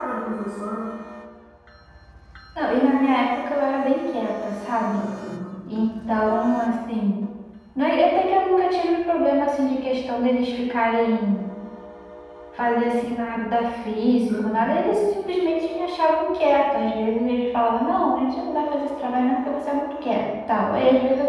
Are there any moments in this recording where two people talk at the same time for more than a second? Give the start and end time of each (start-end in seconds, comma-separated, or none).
none